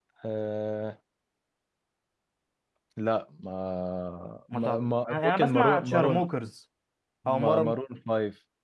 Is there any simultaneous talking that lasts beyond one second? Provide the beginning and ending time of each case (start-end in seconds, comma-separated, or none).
4.5-6.3